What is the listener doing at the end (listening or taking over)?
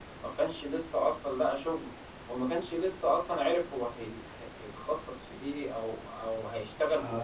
taking over